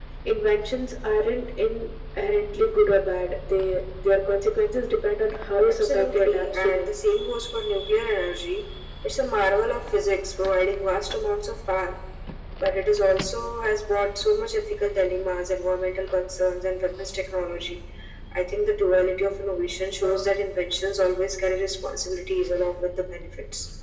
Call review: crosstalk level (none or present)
present